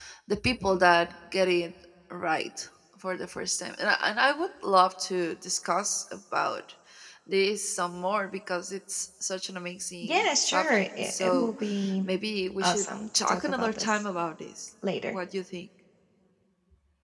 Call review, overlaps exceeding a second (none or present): present